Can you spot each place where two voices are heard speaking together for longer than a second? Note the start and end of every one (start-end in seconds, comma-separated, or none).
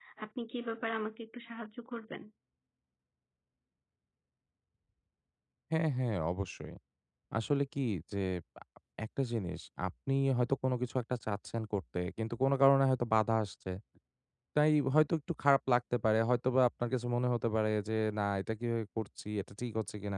none